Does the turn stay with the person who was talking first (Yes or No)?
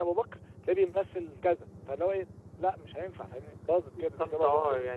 No